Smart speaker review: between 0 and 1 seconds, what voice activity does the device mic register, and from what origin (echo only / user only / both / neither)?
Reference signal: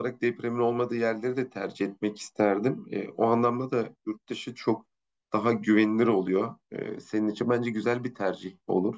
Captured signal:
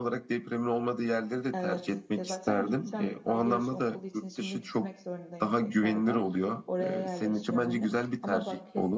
echo only